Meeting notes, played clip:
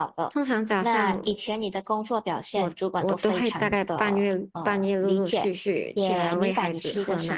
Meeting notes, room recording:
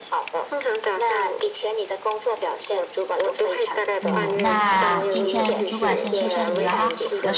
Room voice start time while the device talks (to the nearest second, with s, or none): 4 s